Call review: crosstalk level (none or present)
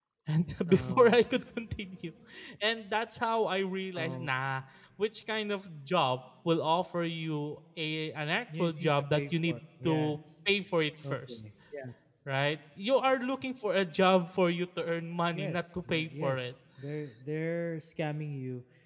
present